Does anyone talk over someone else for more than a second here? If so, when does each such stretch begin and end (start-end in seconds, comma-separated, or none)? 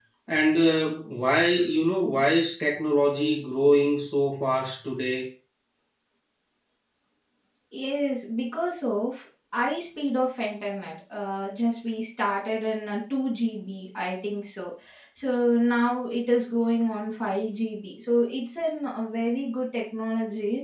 none